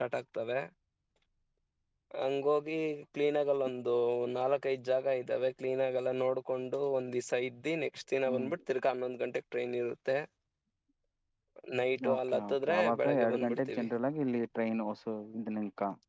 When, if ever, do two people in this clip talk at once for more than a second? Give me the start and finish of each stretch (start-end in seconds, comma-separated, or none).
12.1-13.9